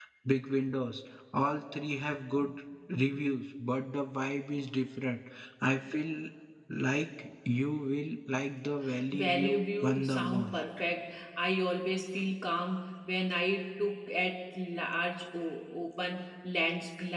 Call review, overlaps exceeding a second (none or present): present